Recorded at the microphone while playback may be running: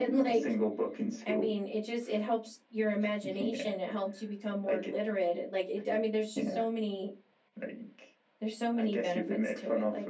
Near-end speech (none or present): none